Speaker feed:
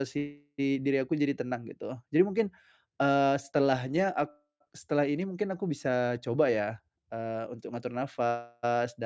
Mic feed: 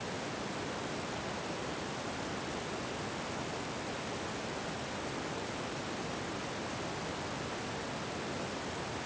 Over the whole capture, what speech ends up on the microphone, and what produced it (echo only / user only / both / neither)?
neither